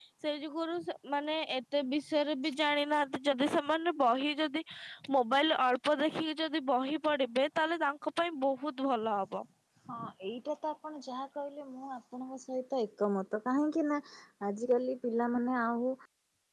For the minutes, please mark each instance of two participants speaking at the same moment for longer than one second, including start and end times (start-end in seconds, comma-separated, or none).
none